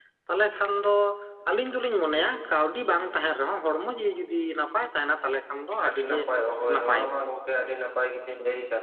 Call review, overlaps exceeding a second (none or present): none